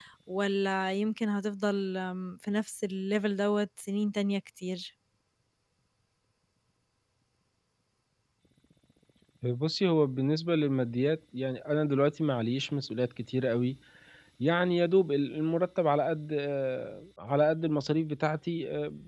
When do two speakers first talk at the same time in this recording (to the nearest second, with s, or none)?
none